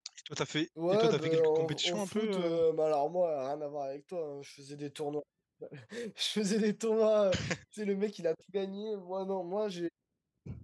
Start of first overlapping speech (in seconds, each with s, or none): 0.9 s